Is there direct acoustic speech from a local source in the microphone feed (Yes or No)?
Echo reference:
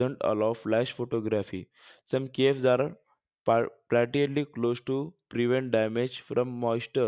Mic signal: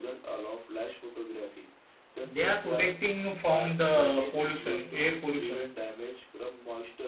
Yes